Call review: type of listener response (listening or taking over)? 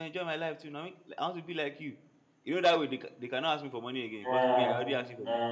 taking over